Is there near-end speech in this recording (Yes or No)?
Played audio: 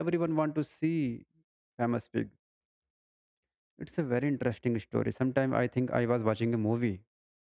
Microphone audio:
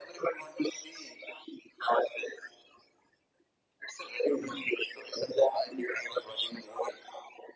No